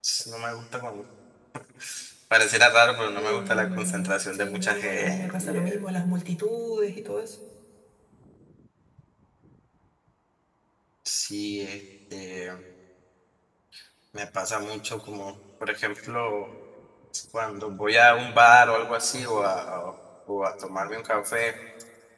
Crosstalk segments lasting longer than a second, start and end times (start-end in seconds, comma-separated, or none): 3.2-5.8